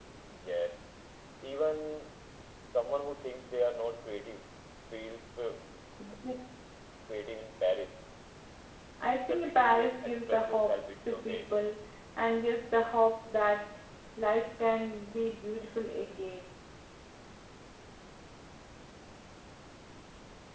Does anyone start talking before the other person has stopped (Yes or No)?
Yes